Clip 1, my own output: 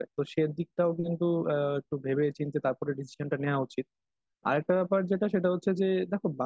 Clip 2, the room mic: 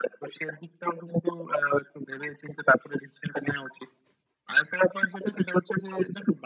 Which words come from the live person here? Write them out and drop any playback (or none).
none